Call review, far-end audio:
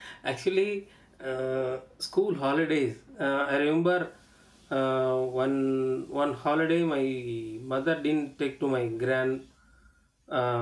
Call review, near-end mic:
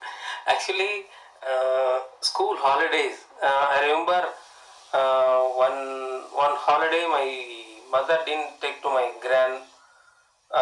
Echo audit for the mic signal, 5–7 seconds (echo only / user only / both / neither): echo only